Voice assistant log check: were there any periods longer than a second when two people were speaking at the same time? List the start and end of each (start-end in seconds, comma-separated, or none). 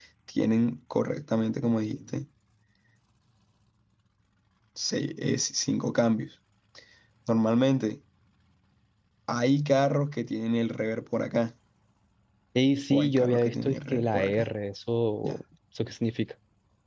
12.9-14.5